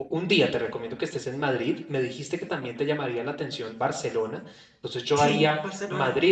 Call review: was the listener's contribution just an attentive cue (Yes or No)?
Yes